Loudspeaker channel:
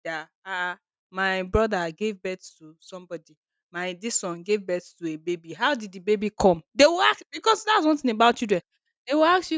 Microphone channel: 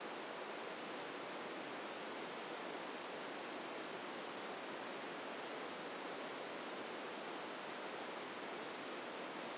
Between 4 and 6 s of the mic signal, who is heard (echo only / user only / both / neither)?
neither